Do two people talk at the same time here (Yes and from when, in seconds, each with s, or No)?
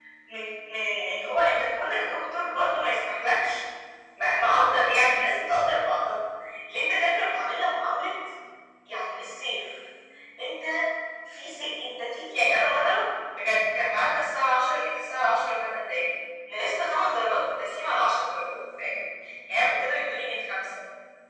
No